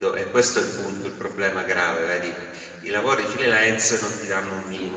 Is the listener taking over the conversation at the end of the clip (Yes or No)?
No